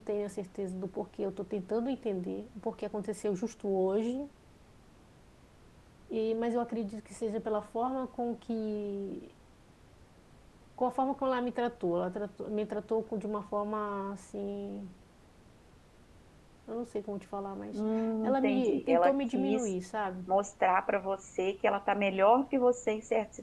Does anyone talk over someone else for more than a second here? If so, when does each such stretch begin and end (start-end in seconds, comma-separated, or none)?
18.2-19.7